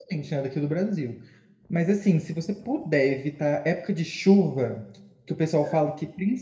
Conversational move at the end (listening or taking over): listening